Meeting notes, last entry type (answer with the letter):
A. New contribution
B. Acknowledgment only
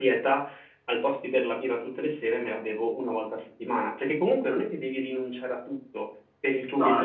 B